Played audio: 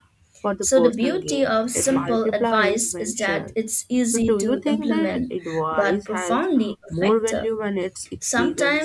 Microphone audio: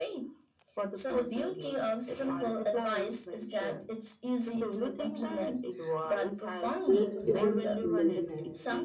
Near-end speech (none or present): present